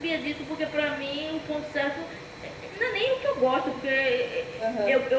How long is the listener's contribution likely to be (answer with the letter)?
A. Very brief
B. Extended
A